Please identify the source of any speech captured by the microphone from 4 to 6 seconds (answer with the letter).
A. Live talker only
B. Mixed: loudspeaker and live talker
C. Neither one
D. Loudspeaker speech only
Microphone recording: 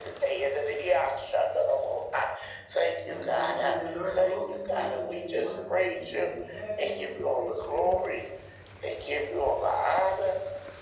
B